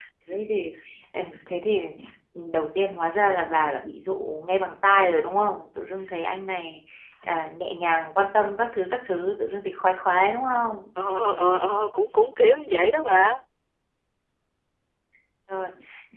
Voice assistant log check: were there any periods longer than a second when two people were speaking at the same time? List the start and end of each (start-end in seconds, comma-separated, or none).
none